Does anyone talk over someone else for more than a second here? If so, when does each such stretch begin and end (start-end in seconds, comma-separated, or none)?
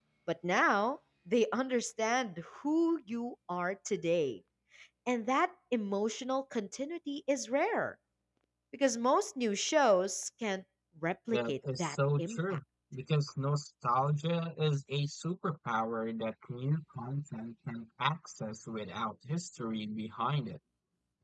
11.3-12.6